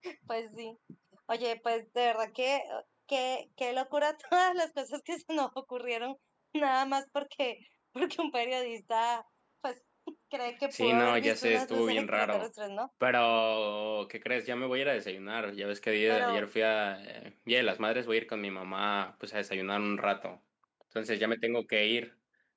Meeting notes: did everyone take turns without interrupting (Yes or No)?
No